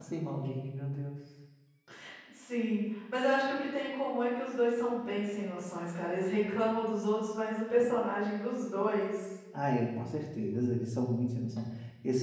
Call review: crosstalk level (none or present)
none